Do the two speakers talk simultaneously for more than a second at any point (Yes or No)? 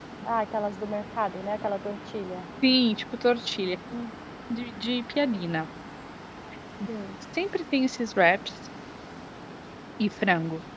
No